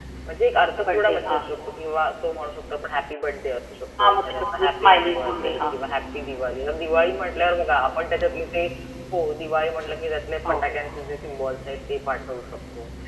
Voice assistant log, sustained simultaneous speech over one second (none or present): present